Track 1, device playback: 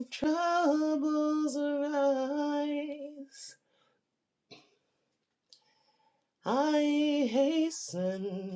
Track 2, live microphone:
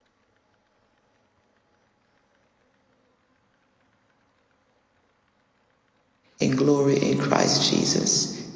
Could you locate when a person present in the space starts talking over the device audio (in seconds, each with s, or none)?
6.4 s